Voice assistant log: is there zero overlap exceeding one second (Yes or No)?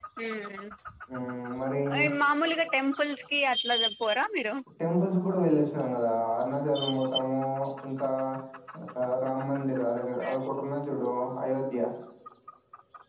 Yes